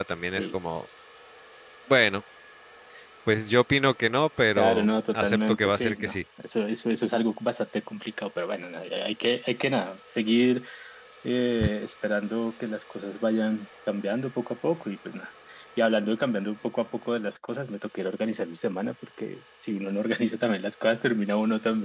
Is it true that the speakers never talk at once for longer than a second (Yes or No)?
No